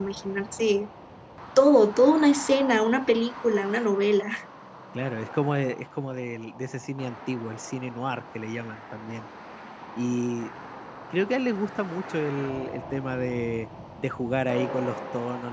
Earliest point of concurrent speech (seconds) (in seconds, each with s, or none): none